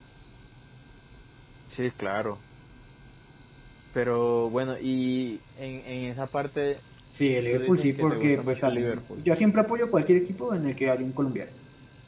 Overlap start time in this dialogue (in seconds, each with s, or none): 7.5 s